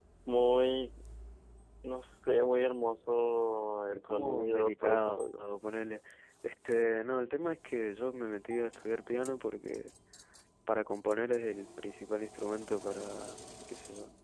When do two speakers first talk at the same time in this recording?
4 s

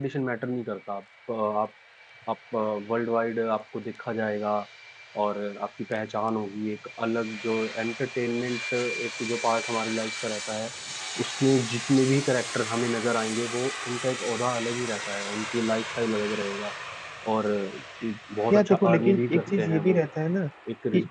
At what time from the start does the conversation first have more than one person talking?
19 s

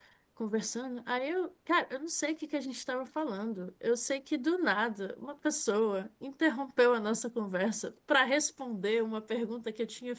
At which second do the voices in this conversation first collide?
none

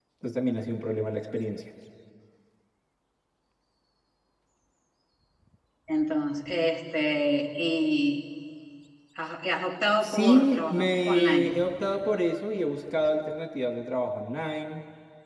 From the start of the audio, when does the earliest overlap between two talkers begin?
10 s

